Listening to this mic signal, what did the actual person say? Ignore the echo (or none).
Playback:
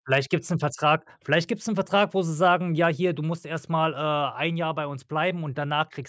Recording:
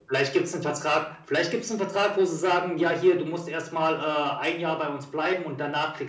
none